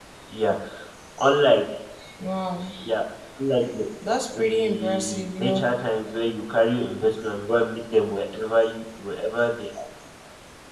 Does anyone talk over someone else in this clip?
Yes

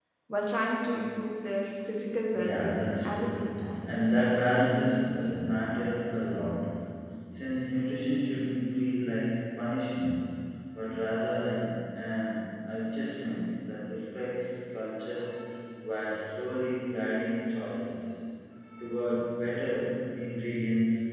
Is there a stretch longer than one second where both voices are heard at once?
Yes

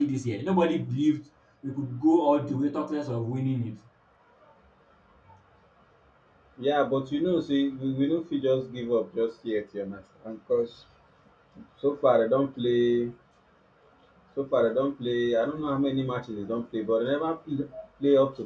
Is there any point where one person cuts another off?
No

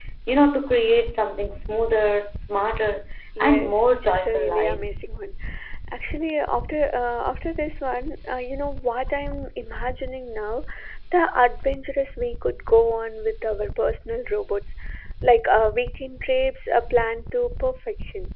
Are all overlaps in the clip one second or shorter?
No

